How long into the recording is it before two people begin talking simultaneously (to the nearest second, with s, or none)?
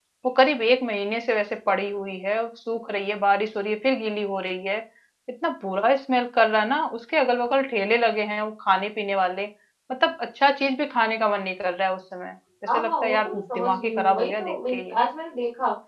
13 s